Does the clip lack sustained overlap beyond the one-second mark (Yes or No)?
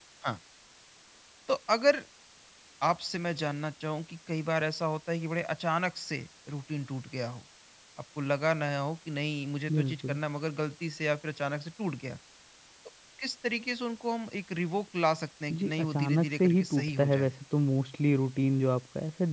No